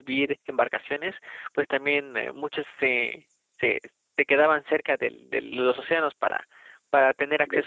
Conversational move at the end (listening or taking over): listening